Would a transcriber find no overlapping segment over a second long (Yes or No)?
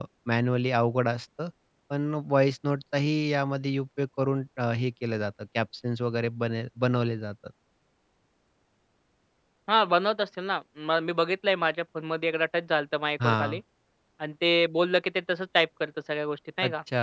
Yes